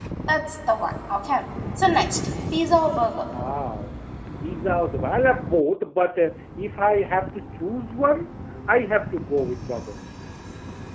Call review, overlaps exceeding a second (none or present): none